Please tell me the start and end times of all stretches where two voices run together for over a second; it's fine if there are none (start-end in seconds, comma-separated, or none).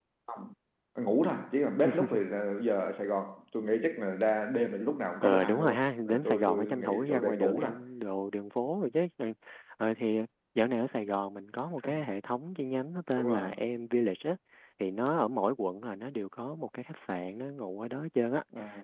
5.2-7.7